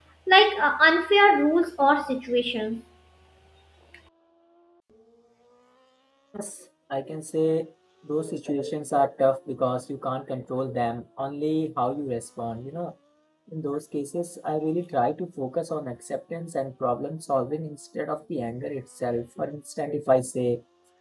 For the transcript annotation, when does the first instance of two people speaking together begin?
none

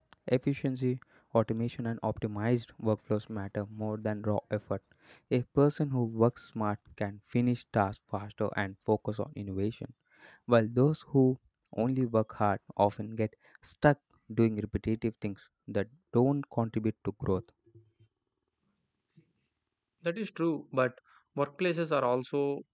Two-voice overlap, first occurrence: none

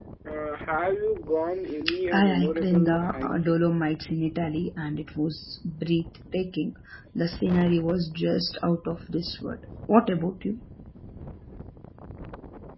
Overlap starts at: 1.9 s

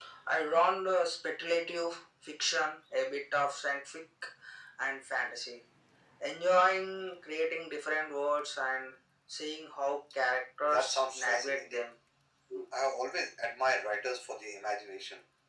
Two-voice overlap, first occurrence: 10.6 s

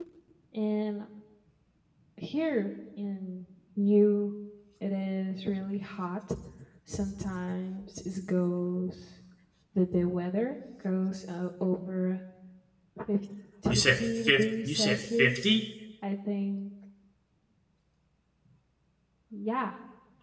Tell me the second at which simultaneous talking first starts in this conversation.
13.7 s

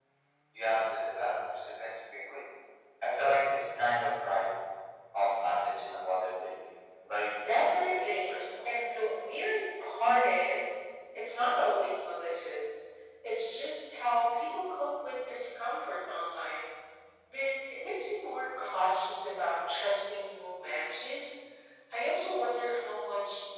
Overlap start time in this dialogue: 7.4 s

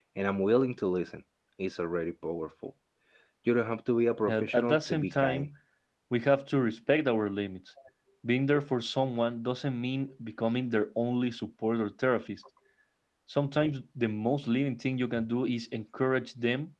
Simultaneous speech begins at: 4.3 s

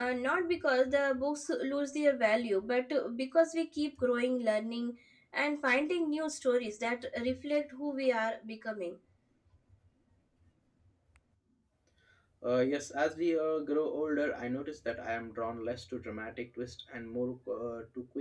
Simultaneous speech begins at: none

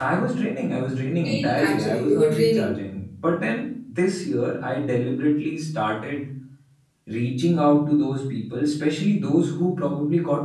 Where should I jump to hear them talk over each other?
1.2 s

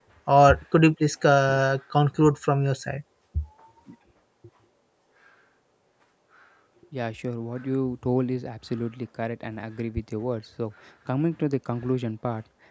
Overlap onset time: none

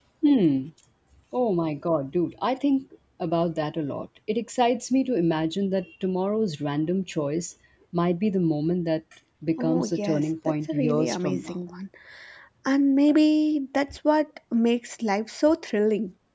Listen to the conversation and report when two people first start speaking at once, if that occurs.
9.6 s

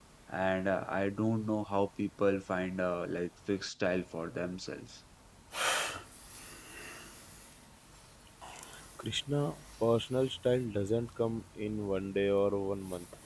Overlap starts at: none

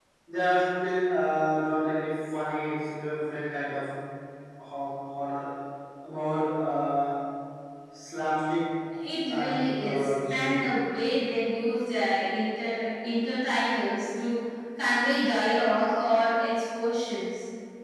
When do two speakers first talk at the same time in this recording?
9.3 s

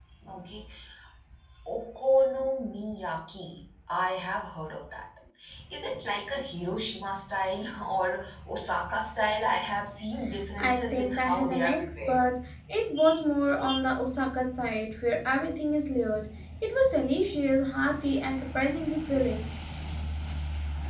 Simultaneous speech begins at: 10.6 s

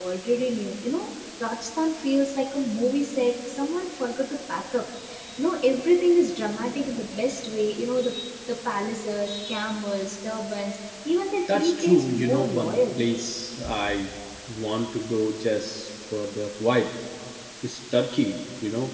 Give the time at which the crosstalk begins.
11.5 s

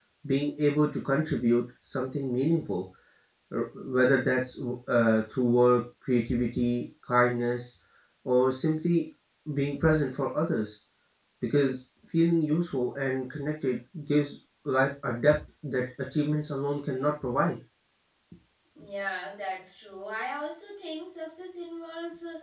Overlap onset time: none

